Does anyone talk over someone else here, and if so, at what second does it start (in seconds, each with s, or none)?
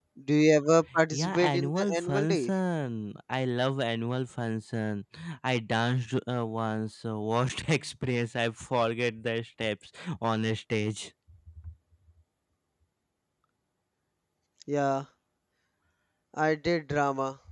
1.1 s